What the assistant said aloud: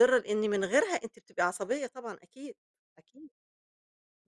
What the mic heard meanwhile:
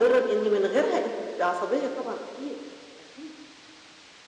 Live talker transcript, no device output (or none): none